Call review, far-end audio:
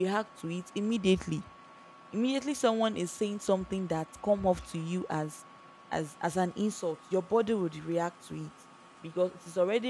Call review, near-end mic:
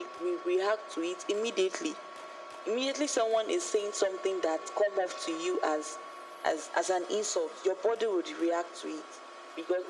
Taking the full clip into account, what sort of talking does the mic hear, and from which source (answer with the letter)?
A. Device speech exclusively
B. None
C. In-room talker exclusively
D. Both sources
A